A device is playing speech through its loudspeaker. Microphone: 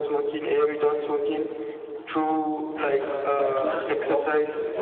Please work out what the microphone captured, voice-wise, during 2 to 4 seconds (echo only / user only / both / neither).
both